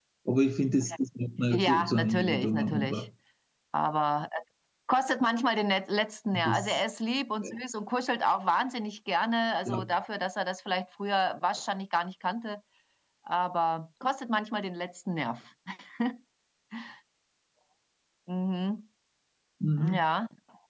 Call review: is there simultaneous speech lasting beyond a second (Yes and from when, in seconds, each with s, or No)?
Yes, from 1.5 s